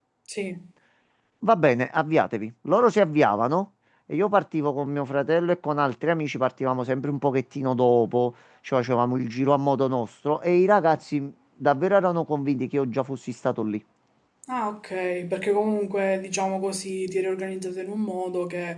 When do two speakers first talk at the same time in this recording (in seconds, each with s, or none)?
none